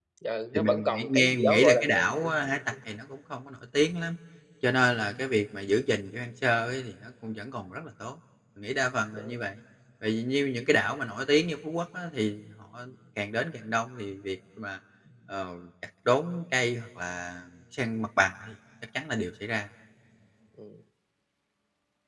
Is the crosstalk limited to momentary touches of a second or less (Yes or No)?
No